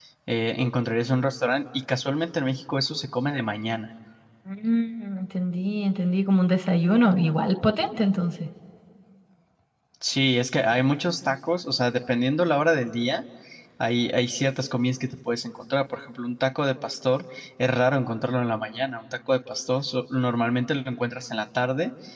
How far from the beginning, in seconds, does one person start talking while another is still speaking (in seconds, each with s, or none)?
none